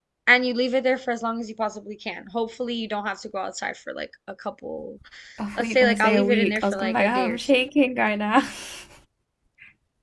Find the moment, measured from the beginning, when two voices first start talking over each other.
5.6 s

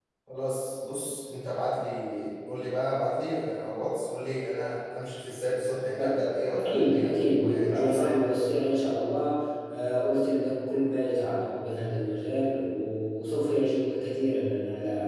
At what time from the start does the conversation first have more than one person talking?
6.0 s

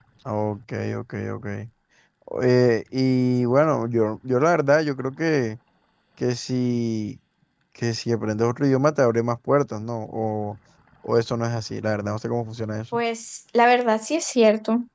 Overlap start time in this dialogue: none

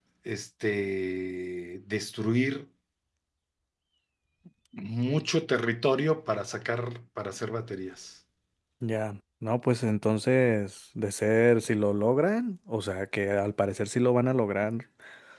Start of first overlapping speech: none

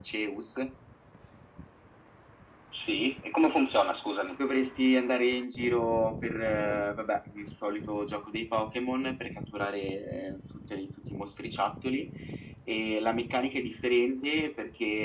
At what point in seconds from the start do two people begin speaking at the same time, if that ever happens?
none

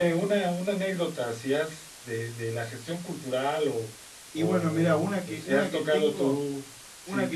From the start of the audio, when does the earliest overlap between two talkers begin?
4.4 s

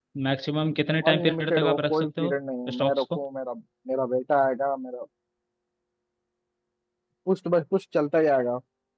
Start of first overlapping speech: 1.1 s

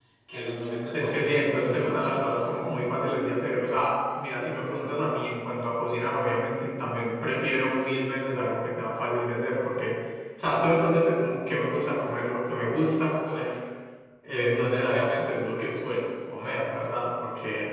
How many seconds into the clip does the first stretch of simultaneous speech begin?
0.9 s

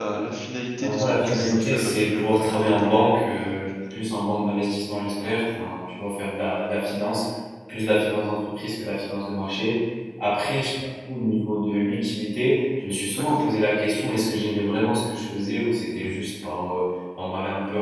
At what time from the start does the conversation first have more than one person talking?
0.8 s

